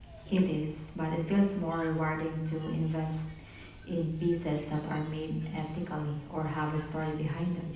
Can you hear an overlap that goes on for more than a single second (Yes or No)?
No